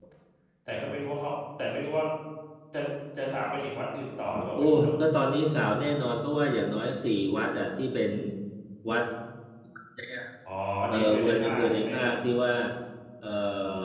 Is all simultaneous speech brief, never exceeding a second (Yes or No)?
No